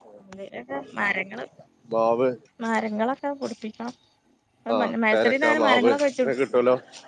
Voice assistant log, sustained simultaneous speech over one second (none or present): present